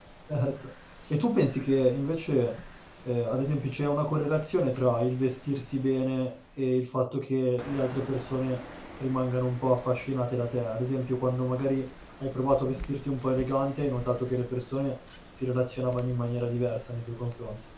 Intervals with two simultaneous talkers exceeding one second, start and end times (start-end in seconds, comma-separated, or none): none